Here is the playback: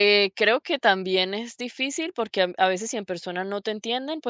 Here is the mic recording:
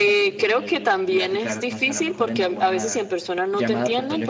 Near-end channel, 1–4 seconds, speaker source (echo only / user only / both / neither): both